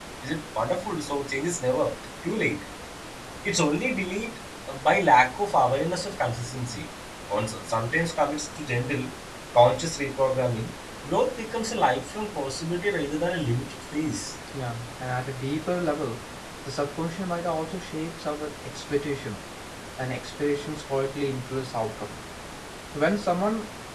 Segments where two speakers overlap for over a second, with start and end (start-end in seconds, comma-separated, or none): none